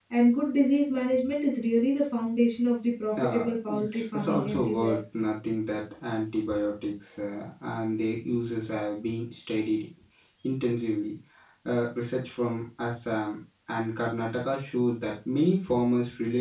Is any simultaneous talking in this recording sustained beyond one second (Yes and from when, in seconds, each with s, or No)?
Yes, from 3.2 s